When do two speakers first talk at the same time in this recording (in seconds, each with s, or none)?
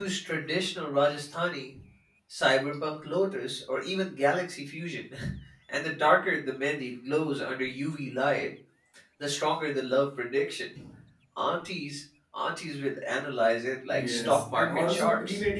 13.9 s